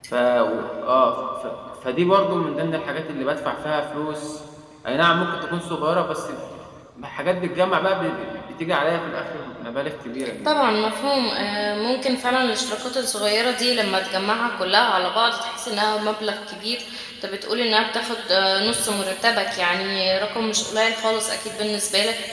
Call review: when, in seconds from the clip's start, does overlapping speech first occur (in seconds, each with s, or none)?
none